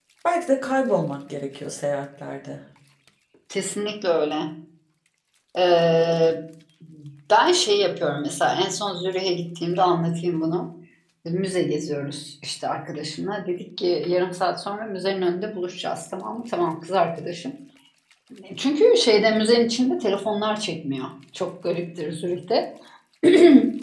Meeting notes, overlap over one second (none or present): none